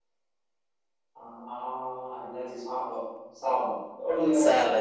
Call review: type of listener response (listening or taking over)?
taking over